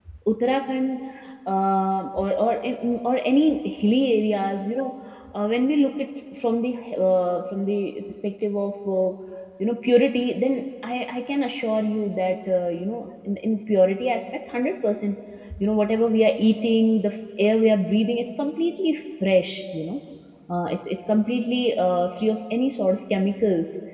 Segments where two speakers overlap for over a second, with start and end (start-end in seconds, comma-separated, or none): none